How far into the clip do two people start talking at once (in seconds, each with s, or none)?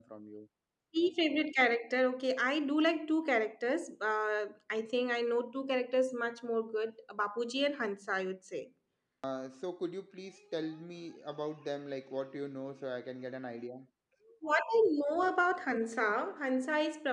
none